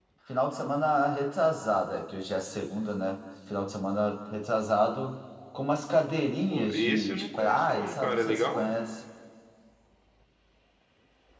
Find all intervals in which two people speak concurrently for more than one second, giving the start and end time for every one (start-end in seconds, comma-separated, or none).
6.5-8.7